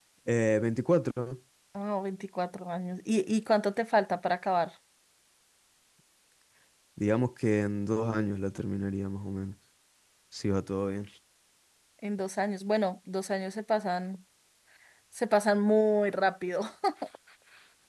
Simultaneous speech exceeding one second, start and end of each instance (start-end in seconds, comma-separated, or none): none